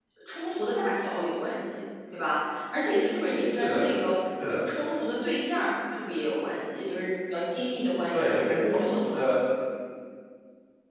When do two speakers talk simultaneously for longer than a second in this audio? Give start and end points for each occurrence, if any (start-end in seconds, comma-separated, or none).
8.1-9.4